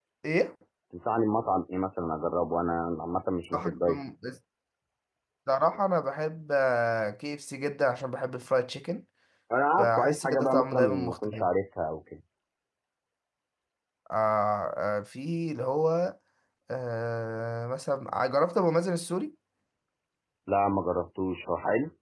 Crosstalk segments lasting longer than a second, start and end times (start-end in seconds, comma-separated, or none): 9.8-11.5